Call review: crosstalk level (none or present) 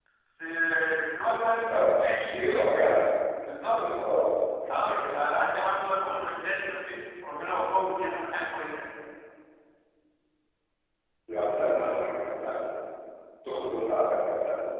present